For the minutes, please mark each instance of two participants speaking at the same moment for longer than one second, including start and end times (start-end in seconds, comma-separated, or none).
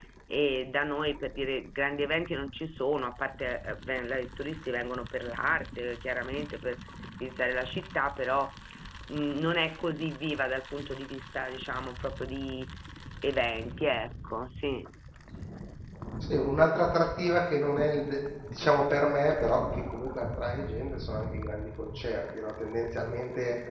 none